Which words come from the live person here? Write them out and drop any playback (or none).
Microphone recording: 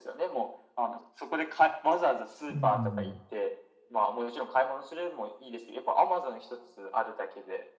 うん。